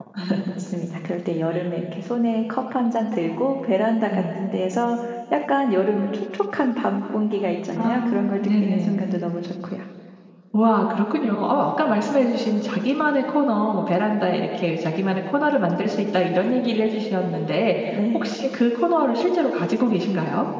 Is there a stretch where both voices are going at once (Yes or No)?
Yes